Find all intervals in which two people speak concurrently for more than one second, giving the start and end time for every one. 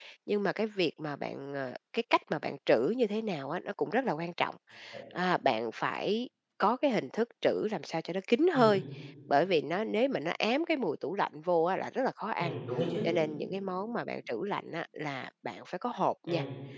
none

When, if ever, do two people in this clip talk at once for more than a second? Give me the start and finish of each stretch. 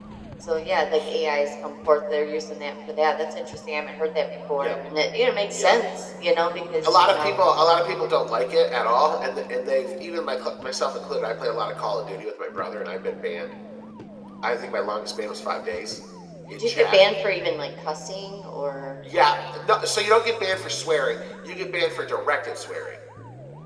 none

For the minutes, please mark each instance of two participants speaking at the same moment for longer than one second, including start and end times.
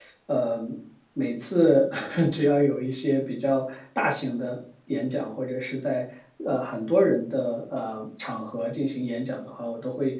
none

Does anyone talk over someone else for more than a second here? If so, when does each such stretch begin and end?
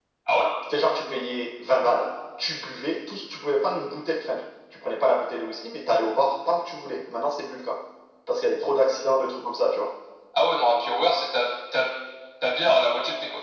none

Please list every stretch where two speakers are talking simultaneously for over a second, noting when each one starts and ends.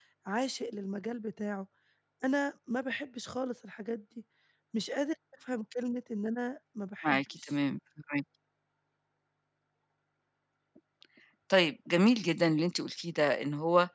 none

